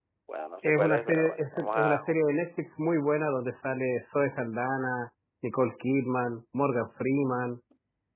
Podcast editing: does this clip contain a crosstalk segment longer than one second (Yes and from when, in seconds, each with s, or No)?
Yes, from 0.6 s